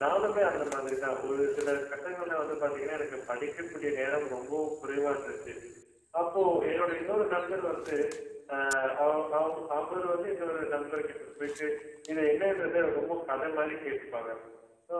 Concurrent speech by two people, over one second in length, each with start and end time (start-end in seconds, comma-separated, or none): none